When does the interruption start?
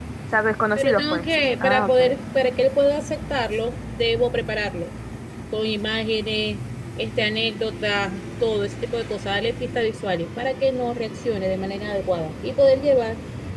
0.8 s

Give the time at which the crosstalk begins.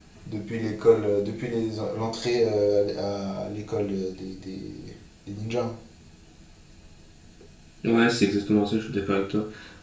none

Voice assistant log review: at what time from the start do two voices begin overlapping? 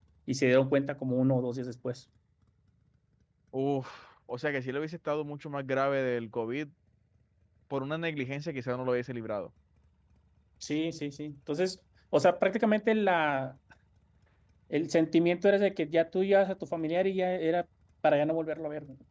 none

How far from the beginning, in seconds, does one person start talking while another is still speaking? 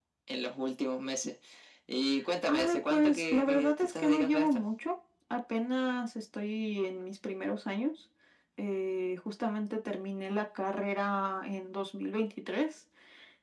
2.5 s

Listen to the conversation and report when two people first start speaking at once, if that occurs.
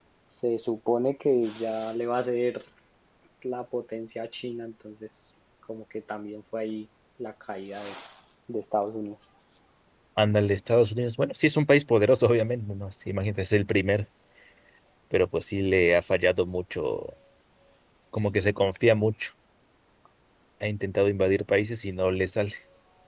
none

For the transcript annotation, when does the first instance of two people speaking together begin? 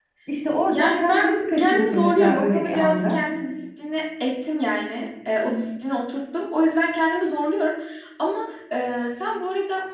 0.7 s

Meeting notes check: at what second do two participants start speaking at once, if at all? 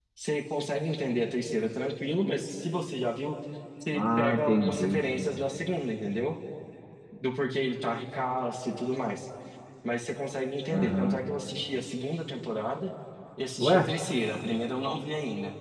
3.9 s

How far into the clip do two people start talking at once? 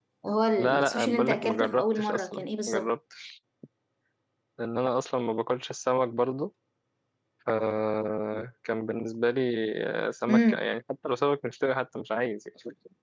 0.6 s

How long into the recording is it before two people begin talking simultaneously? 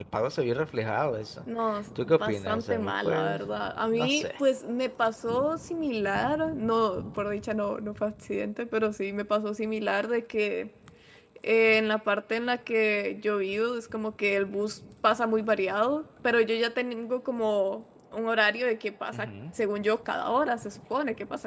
2.0 s

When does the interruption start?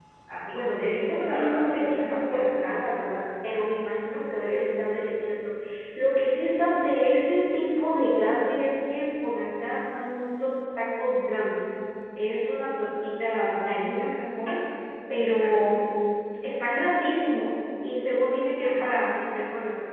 0.5 s

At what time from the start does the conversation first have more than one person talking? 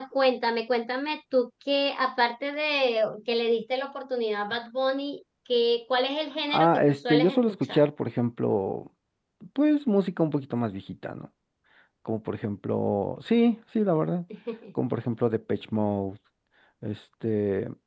6.5 s

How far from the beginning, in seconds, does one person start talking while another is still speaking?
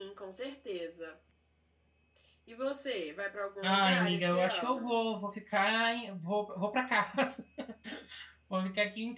3.6 s

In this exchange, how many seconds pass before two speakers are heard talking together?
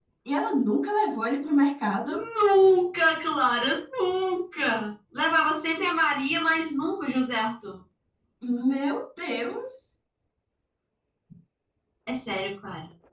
none

